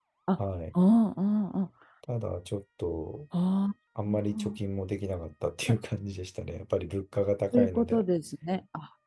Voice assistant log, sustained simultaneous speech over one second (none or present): none